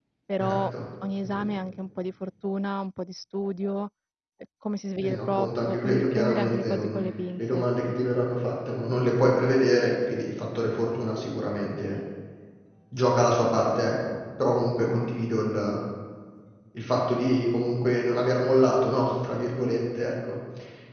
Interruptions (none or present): present